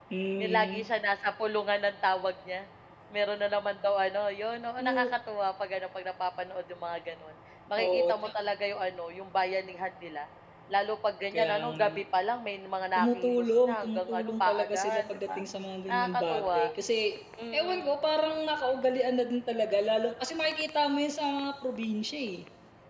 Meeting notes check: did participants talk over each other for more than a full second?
Yes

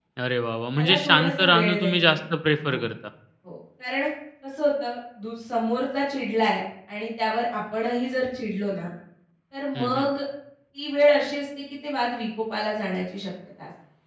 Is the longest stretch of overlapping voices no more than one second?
No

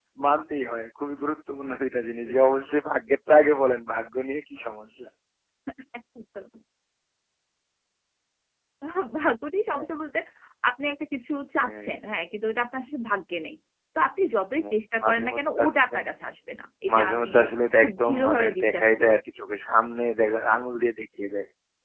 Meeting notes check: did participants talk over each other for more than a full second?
Yes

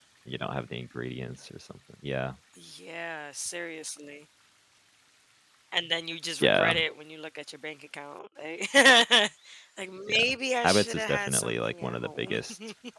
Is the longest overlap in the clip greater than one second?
Yes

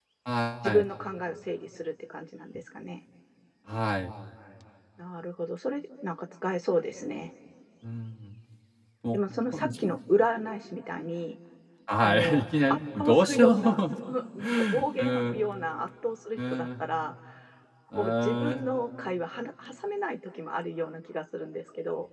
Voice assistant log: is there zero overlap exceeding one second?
No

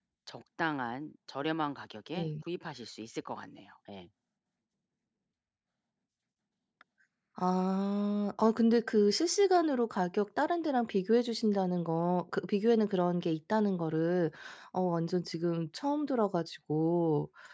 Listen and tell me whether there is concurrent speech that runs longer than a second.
No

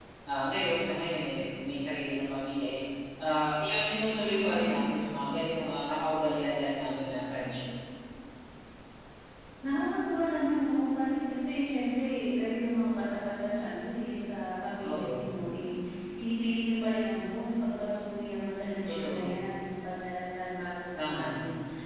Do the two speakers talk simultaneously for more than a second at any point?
No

